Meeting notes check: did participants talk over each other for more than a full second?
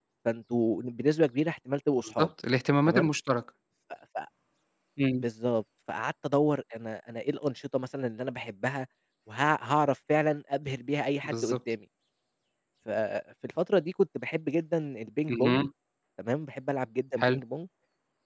No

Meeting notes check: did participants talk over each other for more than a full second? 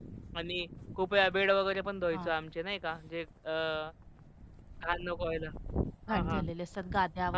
No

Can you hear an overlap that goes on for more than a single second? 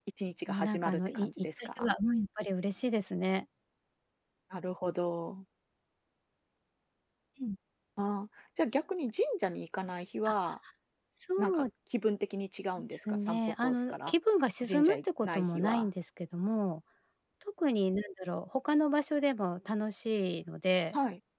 Yes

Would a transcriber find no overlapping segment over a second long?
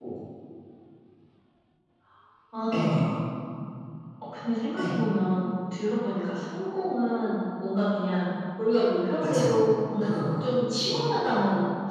Yes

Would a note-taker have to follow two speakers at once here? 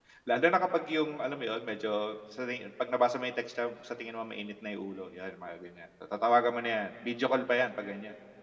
No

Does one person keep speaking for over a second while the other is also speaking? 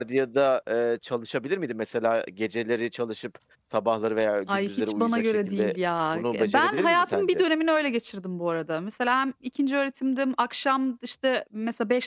Yes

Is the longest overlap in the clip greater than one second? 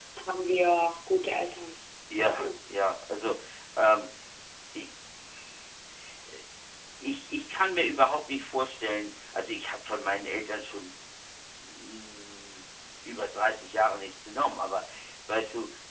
No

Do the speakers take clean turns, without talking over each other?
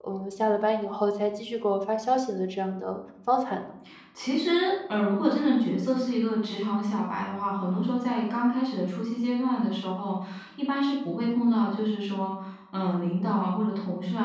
Yes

